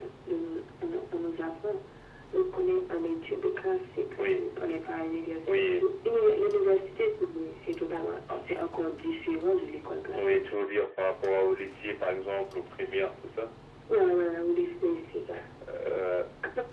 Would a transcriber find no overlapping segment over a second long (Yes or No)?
Yes